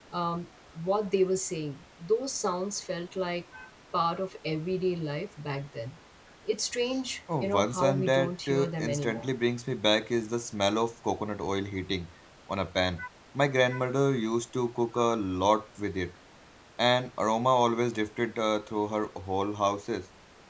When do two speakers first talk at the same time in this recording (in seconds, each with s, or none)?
7.3 s